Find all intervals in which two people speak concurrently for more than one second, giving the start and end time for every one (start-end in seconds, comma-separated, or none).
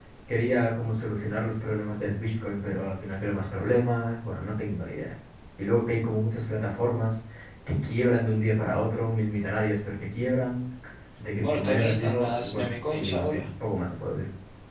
11.3-13.4